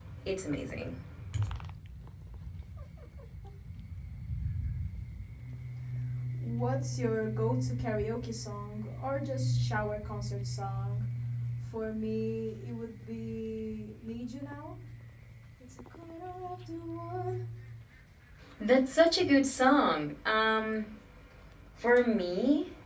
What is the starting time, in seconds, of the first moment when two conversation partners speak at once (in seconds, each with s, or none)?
none